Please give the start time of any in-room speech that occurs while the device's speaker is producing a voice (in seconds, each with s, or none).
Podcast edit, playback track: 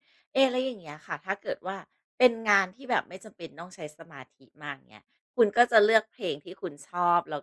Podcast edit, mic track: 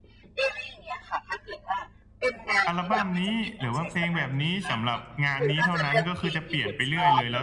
2.7 s